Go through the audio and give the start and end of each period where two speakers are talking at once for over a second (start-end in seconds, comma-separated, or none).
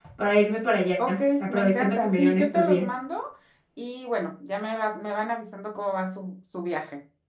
1.4-2.9